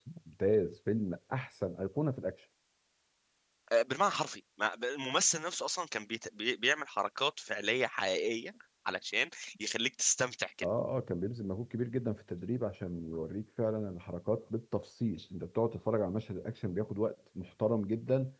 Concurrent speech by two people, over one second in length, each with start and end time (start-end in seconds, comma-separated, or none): none